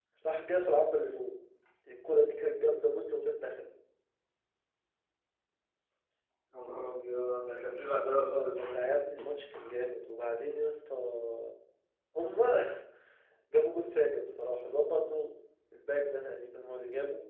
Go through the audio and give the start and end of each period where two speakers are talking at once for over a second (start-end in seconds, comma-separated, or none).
none